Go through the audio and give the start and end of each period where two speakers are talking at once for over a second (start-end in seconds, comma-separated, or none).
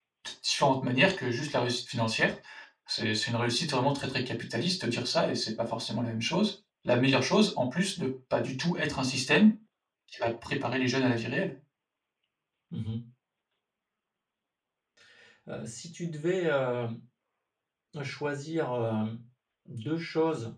none